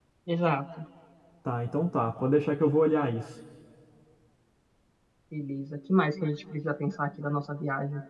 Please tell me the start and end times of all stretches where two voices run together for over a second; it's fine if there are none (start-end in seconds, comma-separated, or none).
none